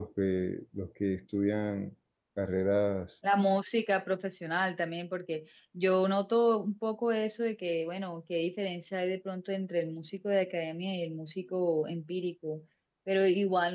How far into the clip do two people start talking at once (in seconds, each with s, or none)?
none